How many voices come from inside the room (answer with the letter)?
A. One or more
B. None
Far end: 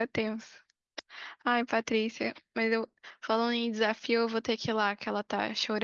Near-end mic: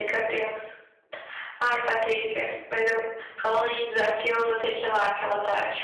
B